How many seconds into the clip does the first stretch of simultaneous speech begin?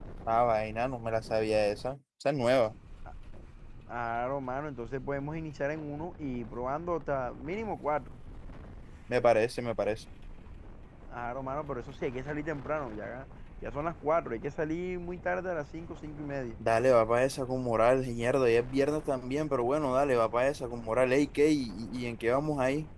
none

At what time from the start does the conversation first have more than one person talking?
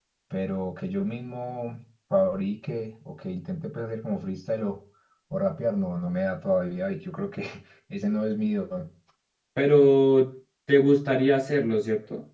none

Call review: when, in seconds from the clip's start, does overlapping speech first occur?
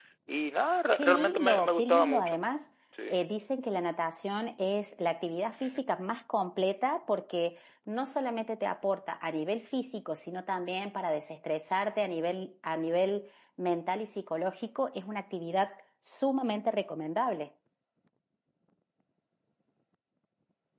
1.0 s

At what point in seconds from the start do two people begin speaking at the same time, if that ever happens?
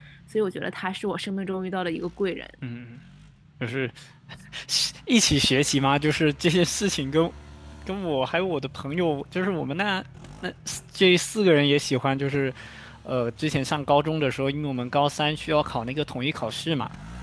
none

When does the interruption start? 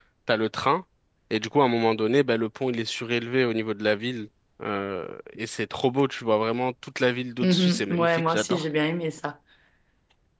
7.4 s

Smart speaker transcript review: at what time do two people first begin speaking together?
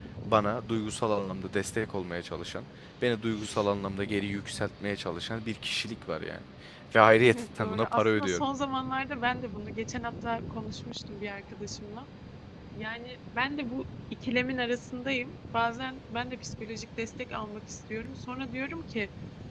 7.2 s

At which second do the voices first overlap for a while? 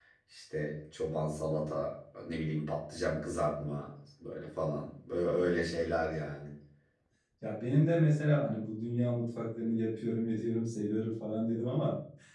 none

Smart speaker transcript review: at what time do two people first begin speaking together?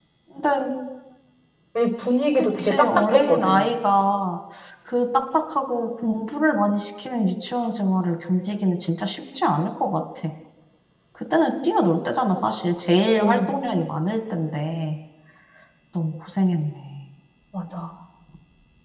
2.4 s

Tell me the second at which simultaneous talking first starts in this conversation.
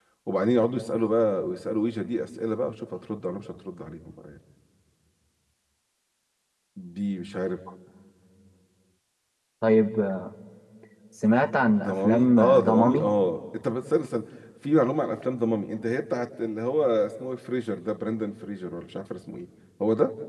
11.8 s

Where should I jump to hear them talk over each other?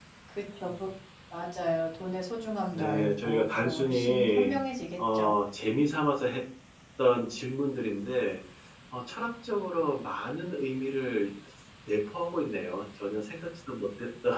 2.7 s

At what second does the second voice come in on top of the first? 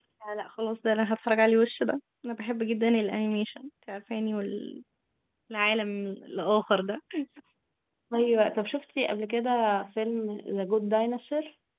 none

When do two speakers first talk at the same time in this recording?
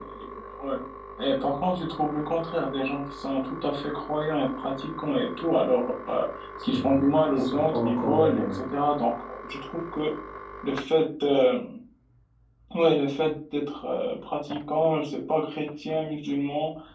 6.6 s

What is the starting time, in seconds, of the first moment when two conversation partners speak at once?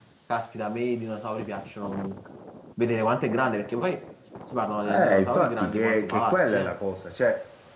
4.9 s

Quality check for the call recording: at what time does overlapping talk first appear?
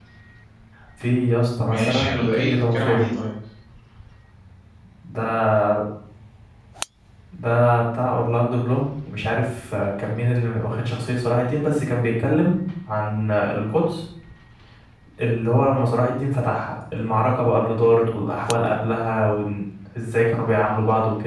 1.7 s

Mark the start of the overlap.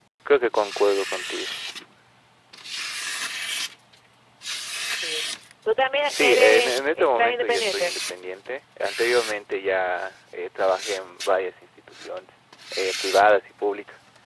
6.1 s

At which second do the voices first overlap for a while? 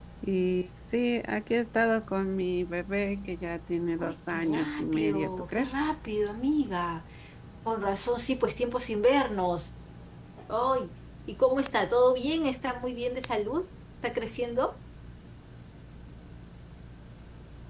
4.0 s

